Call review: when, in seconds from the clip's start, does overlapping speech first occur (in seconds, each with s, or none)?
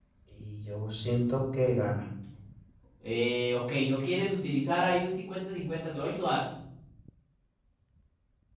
none